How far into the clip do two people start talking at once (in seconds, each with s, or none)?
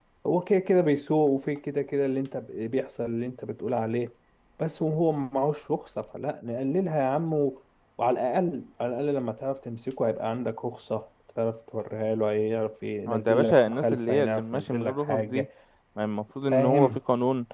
13.1 s